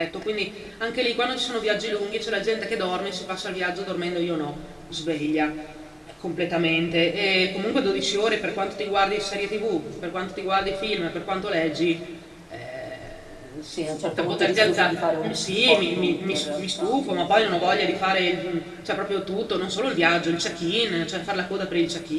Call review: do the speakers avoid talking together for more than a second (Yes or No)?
No